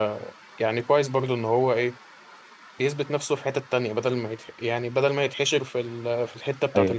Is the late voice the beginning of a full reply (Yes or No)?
Yes